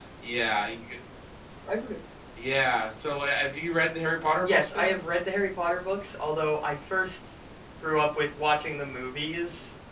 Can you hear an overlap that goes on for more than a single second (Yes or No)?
No